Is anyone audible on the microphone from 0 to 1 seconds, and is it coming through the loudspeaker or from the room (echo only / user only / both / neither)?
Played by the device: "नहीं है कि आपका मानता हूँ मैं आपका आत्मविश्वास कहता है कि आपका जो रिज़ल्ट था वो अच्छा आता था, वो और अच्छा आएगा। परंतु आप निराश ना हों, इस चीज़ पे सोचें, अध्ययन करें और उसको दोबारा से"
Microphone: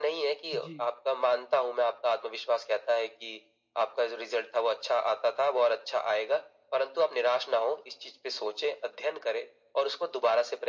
both